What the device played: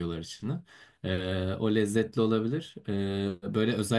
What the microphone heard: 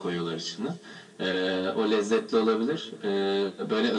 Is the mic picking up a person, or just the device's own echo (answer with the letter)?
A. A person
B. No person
B